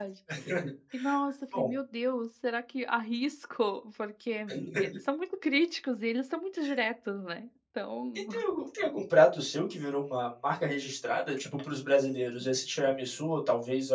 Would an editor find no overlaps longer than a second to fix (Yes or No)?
Yes